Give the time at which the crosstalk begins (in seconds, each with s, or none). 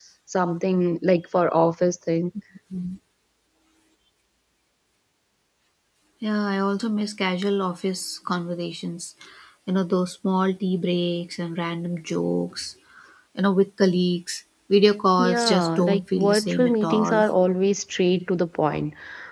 15.2 s